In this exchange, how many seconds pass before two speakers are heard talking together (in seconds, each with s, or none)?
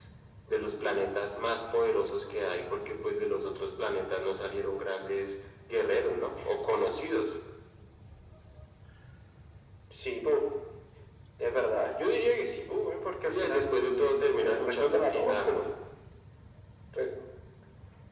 13.3 s